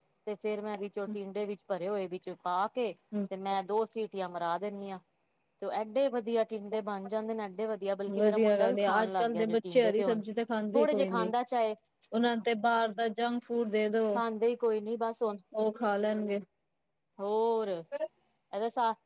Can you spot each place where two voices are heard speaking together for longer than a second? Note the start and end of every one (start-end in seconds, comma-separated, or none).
8.2-10.2